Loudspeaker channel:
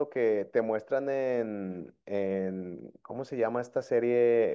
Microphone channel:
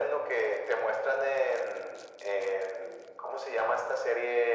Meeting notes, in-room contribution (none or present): none